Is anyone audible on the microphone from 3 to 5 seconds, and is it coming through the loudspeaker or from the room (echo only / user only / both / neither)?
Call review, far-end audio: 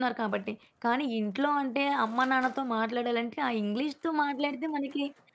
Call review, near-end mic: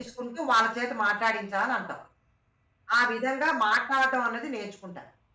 user only